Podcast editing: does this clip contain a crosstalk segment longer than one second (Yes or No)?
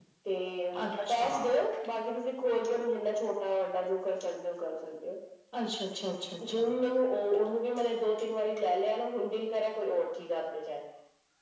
No